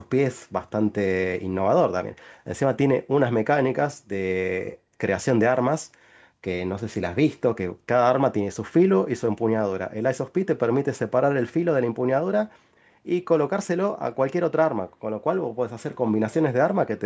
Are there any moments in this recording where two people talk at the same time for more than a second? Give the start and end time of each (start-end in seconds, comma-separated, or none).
none